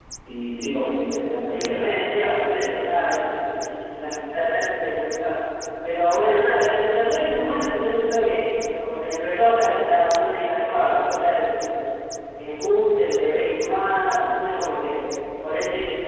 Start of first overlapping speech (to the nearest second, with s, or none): 2 s